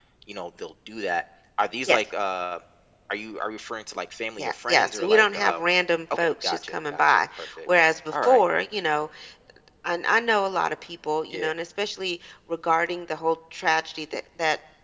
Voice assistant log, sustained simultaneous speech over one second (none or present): present